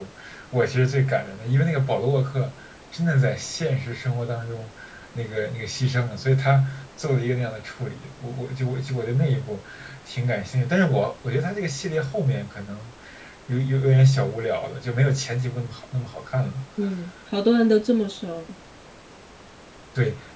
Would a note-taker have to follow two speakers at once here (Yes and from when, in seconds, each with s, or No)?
No